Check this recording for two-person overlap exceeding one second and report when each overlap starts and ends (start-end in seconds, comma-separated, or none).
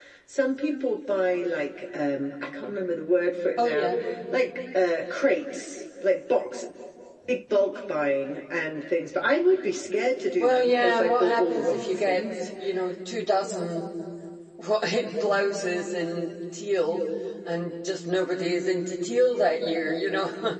10.4-12.2